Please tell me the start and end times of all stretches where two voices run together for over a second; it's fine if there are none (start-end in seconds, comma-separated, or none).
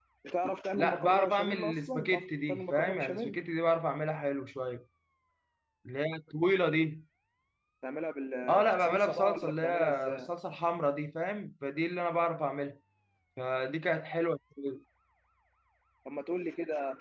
0.8-3.4, 8.5-10.3